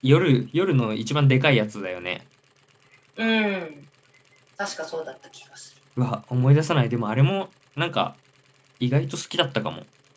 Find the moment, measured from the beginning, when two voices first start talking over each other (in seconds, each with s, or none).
none